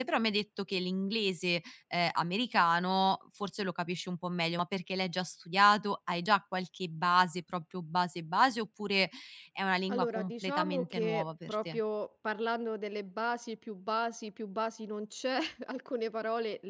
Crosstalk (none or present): present